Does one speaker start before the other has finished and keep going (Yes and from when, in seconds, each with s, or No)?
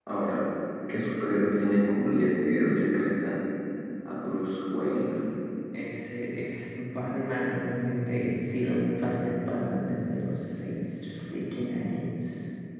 No